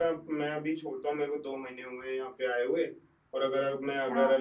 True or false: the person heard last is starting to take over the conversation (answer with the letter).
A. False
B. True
A